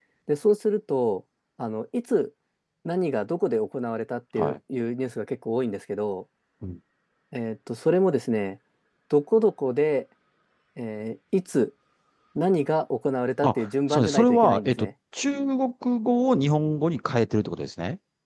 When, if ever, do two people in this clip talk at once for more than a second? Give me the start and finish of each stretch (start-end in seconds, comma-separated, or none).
13.4-14.9